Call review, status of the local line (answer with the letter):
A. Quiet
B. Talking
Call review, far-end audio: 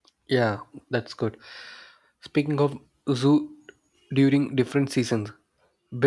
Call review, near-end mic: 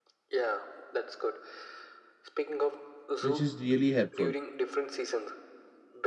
B